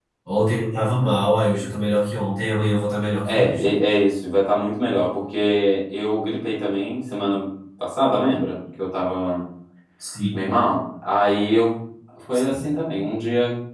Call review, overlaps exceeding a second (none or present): none